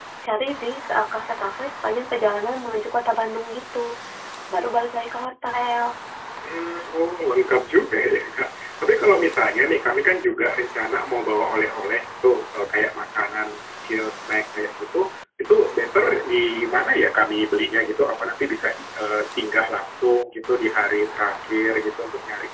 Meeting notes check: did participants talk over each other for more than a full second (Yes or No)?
No